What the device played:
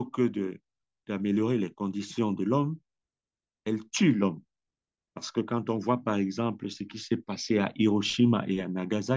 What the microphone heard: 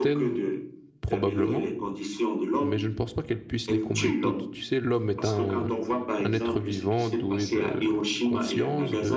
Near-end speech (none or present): present